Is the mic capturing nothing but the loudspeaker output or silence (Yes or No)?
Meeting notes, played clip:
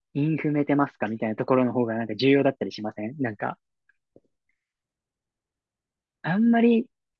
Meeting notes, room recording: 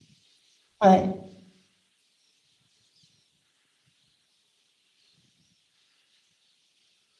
No